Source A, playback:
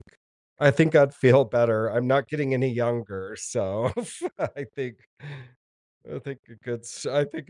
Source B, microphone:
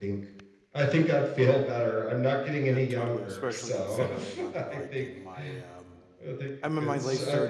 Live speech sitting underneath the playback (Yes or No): Yes